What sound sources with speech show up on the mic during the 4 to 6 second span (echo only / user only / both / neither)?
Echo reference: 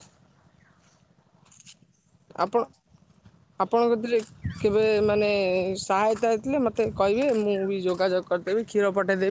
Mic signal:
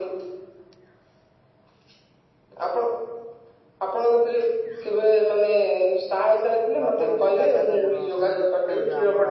echo only